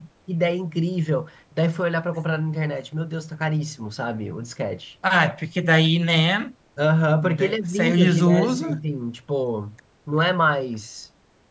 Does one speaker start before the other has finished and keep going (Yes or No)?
Yes